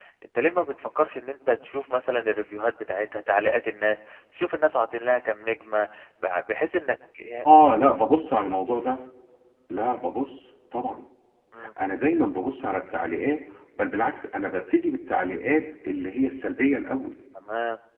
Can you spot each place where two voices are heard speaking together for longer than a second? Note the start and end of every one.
none

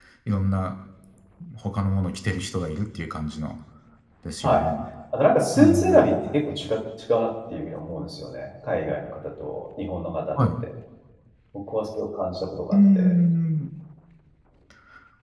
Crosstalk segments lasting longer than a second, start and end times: none

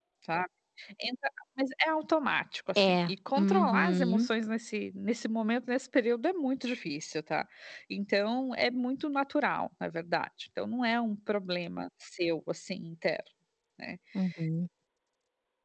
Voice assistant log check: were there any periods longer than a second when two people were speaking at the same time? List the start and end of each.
2.8-4.3

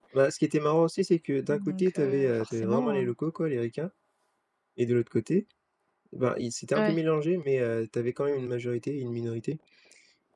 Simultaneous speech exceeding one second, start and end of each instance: 1.5-3.0

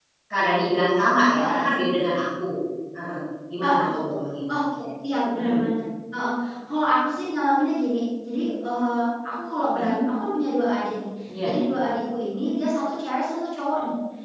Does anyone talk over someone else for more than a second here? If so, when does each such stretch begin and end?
none

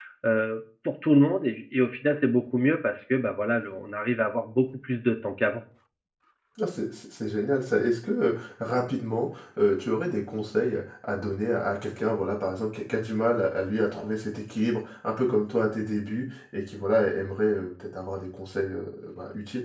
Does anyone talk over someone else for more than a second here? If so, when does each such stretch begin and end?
none

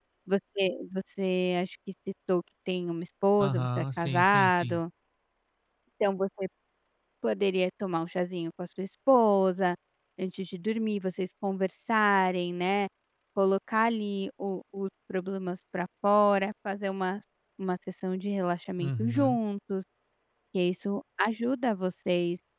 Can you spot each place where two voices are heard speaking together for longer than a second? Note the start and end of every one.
3.4-4.8

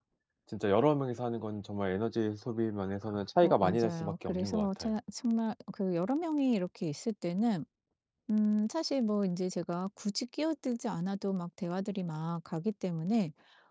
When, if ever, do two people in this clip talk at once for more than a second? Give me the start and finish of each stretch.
3.4-5.0

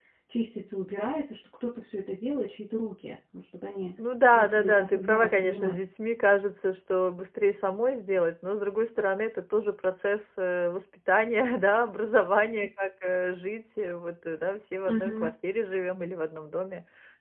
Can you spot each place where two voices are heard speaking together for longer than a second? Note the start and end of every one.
4.3-5.8

